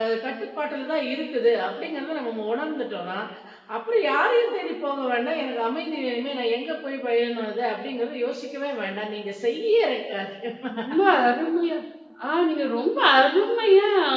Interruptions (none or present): none